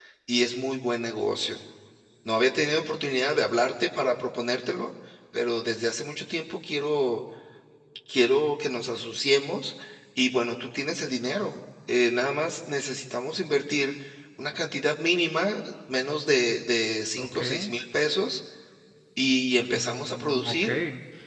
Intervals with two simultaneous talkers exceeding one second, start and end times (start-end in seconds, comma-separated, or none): 19.2-20.7